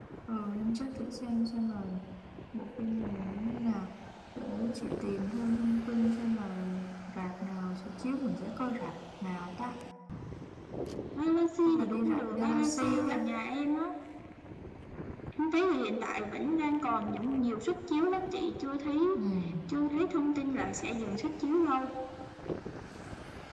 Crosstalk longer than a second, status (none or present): present